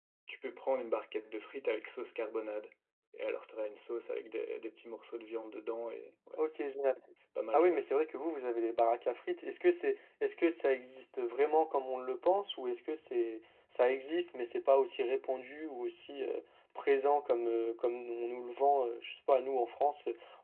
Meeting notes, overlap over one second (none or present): none